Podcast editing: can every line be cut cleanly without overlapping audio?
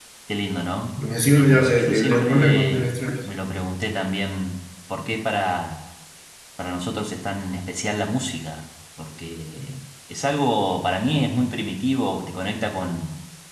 No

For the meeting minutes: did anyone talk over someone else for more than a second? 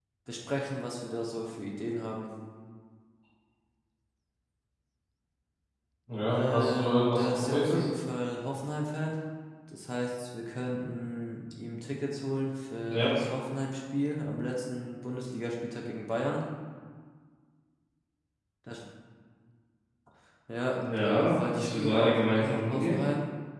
Yes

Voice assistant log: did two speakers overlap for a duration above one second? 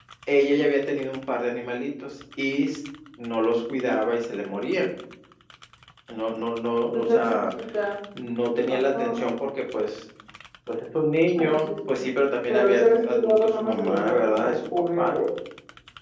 Yes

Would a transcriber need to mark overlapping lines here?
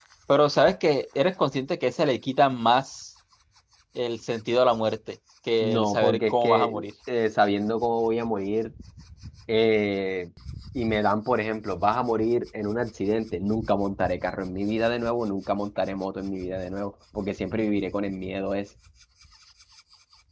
Yes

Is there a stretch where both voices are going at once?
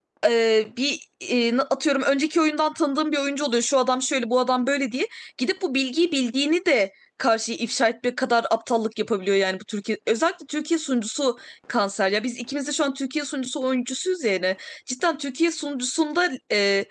No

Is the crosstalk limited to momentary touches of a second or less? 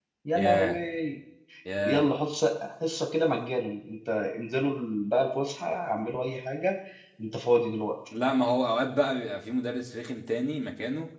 Yes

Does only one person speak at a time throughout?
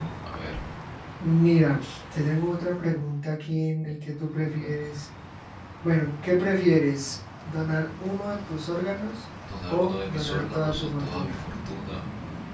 No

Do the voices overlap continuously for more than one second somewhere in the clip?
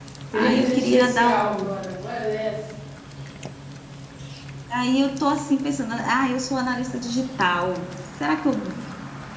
Yes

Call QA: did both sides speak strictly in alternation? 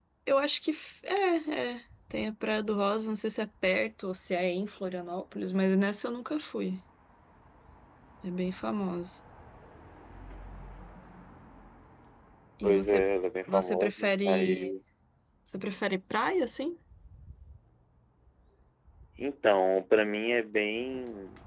No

